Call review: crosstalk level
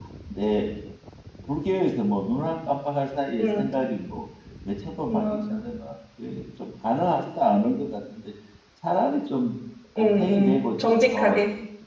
present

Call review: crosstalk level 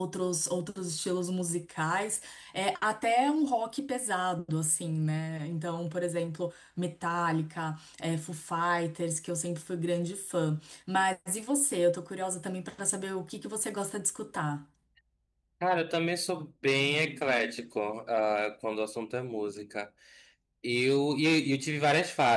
none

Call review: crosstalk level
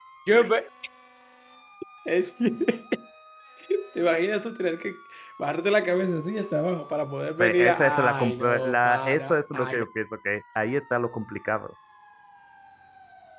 present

